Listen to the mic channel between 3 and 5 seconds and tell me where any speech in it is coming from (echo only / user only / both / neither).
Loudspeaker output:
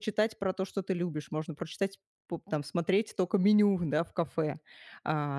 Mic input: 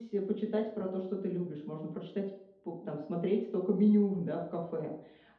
echo only